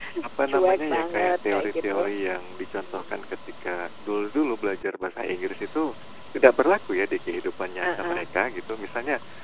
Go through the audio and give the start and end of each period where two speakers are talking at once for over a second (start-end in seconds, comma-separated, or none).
0.5-2.0